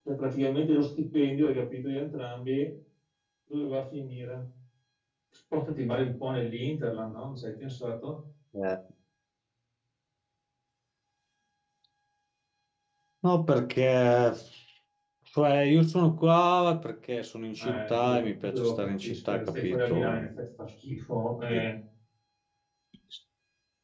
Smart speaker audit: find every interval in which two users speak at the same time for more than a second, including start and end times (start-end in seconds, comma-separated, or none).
17.6-20.3